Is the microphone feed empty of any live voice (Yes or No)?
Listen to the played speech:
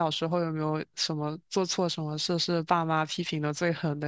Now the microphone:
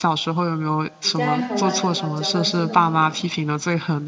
No